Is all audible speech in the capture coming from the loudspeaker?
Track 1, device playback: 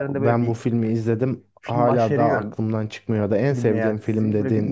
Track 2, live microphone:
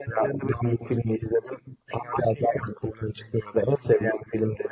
Yes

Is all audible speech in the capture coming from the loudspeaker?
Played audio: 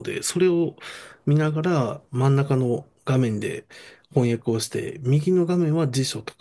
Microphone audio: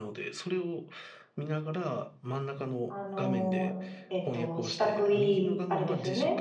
No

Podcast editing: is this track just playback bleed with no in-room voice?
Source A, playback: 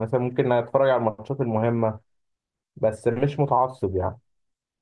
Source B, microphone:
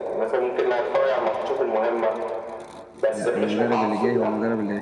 No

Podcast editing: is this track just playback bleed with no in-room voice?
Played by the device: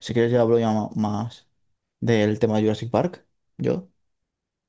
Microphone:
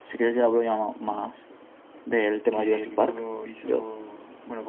No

